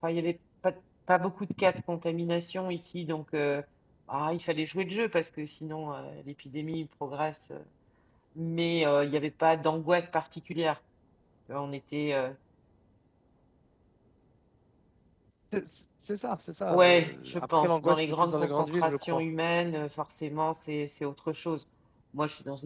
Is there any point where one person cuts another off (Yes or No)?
Yes